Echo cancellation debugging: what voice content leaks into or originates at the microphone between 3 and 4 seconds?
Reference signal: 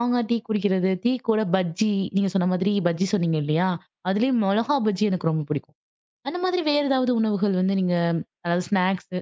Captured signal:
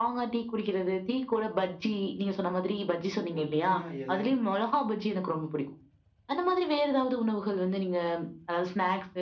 both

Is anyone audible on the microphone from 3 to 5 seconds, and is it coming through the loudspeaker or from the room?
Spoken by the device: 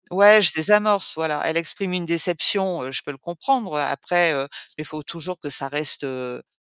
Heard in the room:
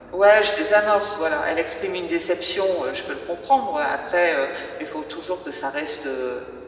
echo only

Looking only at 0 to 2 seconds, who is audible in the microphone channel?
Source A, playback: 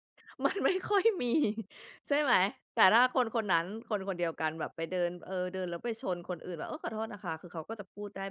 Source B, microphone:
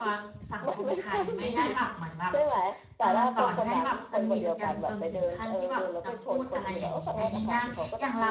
both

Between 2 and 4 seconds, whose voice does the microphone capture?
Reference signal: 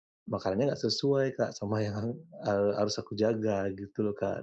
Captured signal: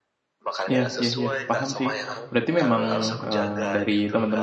both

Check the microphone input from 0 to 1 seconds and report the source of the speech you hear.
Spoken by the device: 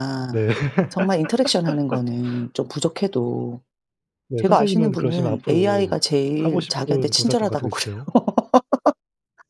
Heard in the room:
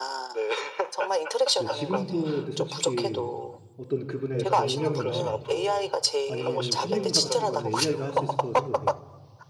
echo only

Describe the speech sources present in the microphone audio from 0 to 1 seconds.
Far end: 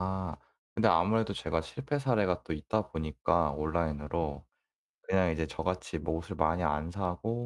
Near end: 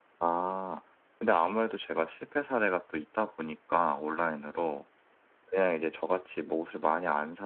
echo only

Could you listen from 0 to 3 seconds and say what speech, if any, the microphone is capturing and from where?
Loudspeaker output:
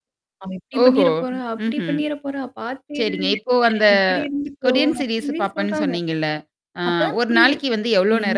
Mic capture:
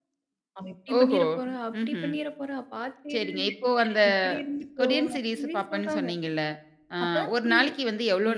echo only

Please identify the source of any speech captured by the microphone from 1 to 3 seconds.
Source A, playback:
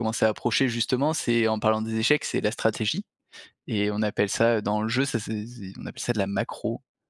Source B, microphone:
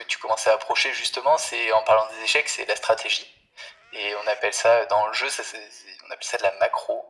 echo only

